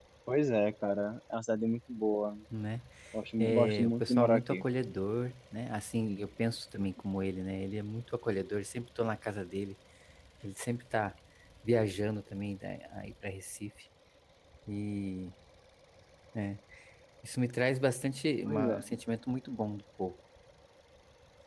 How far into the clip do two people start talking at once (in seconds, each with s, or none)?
3.4 s